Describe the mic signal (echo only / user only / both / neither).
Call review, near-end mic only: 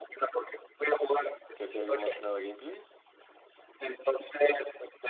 both